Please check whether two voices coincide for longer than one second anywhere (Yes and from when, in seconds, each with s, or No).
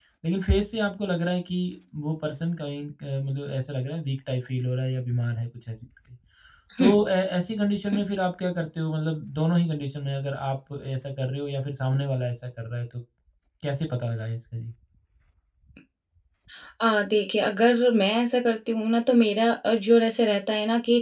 No